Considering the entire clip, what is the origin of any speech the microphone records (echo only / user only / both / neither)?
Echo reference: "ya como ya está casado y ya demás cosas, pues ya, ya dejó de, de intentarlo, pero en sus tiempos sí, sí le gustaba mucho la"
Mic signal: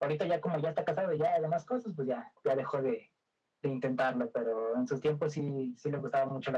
echo only